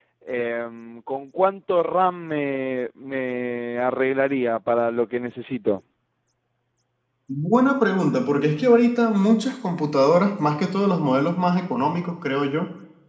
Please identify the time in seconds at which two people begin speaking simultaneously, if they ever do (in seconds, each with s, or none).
none